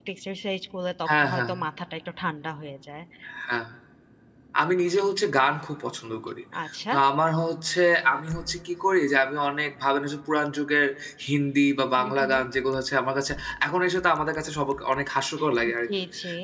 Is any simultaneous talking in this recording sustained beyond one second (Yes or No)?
No